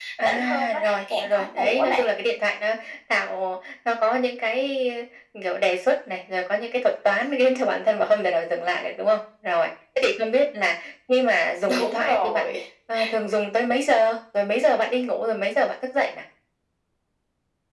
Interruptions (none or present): present